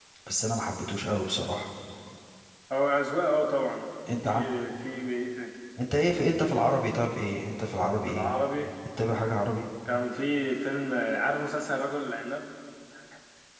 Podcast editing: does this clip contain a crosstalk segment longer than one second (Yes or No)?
No